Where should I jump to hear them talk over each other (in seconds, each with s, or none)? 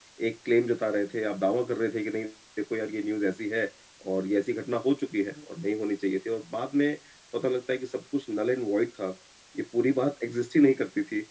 none